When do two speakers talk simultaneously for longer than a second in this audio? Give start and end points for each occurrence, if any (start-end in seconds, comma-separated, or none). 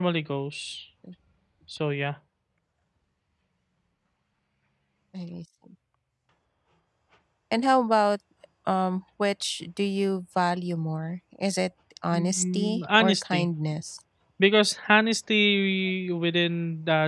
12.1-13.5